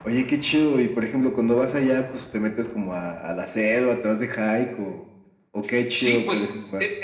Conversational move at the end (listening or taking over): taking over